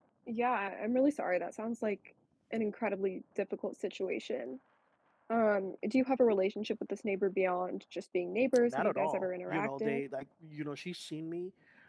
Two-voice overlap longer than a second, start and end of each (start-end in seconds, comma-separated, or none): 8.7-10.0